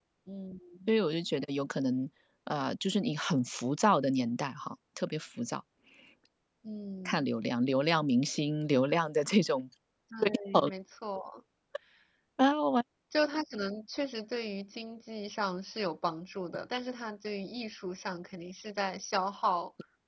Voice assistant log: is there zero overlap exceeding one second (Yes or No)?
Yes